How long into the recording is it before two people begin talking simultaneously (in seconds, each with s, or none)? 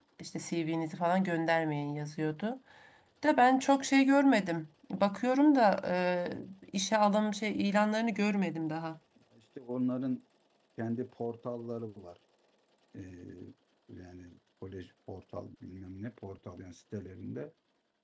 none